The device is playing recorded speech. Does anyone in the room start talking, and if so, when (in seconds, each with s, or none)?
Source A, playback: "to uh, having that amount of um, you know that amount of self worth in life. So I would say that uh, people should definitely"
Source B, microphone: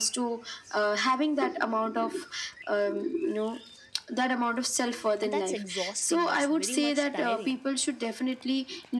5.2 s